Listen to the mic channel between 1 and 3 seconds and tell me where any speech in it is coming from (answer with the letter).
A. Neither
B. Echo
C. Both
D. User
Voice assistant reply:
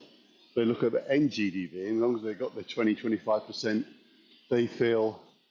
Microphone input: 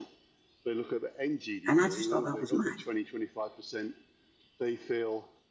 C